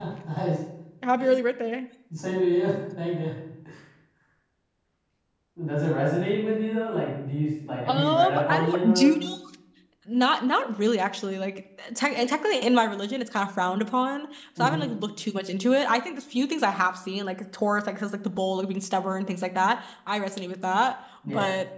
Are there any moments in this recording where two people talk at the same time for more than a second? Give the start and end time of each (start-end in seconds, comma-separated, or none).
7.9-9.3